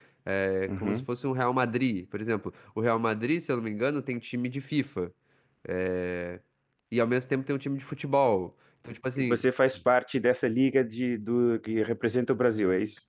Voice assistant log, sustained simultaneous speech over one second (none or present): none